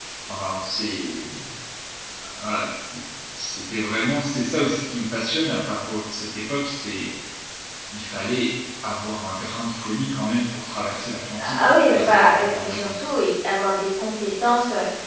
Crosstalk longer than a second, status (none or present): present